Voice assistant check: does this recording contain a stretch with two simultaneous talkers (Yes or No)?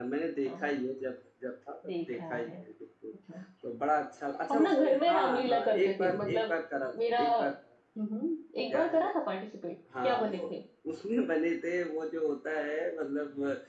Yes